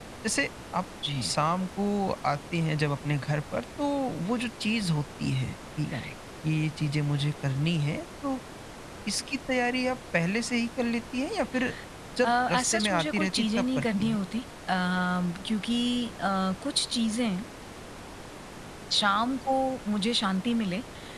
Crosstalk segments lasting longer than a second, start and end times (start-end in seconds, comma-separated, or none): 12.2-14.2